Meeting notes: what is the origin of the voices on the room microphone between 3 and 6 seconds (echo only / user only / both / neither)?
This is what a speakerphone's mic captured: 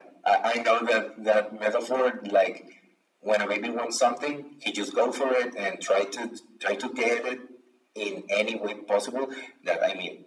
echo only